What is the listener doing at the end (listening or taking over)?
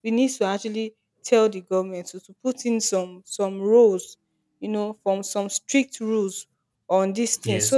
listening